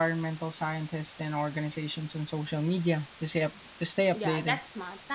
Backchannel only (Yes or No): No